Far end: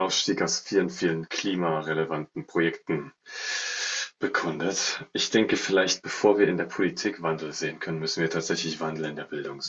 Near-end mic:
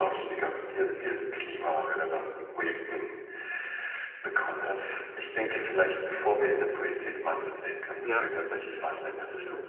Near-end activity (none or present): present